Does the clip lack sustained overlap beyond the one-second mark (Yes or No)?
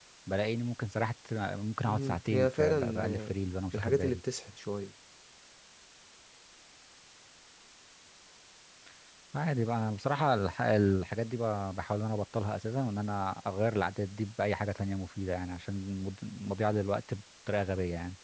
No